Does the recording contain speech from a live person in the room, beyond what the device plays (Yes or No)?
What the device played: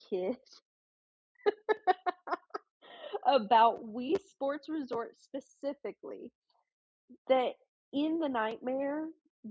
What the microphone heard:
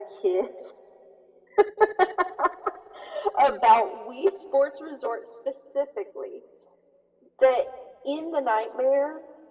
No